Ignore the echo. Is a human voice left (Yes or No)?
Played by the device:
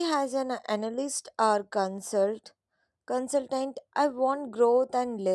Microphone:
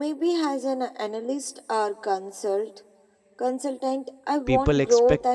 Yes